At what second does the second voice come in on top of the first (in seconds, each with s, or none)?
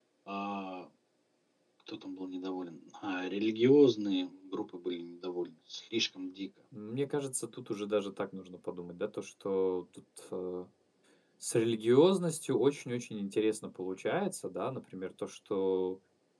none